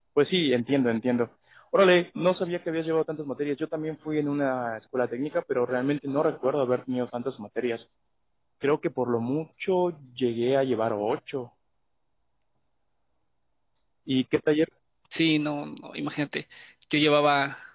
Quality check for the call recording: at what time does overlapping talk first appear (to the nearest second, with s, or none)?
none